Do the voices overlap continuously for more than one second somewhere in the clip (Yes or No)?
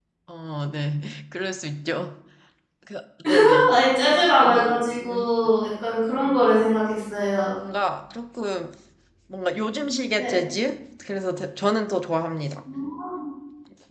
No